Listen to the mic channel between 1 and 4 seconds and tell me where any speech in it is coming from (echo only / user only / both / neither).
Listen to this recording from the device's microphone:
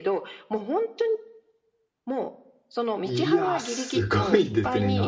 both